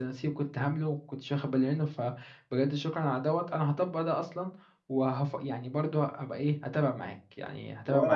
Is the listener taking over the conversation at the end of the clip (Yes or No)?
Yes